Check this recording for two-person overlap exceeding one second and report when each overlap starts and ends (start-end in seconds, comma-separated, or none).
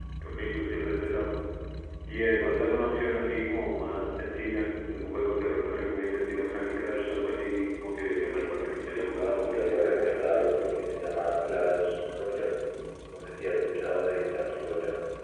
9.2-10.5